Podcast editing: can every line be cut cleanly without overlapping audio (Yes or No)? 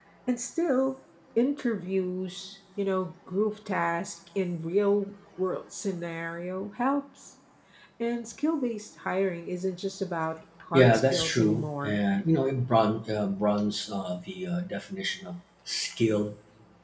No